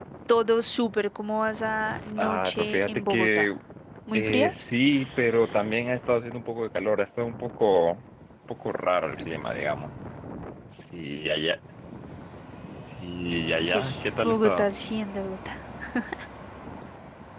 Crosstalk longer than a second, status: present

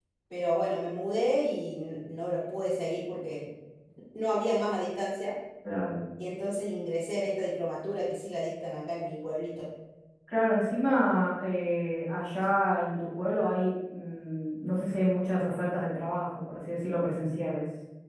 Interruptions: none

